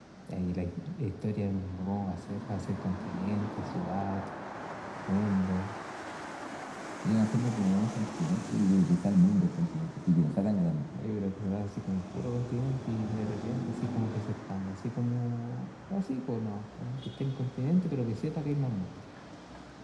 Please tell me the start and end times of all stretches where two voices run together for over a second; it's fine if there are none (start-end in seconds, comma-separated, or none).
none